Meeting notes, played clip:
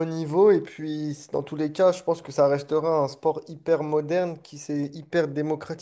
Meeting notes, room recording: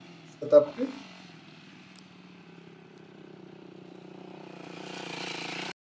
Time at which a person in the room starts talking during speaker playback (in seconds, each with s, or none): 0.4 s